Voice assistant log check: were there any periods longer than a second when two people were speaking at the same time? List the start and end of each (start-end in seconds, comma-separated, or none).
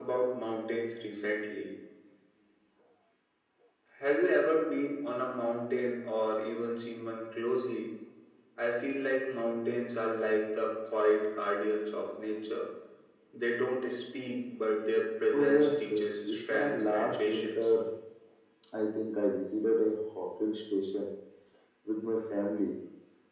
15.3-17.7